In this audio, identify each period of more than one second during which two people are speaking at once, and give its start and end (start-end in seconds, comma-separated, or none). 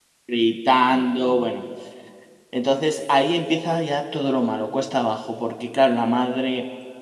none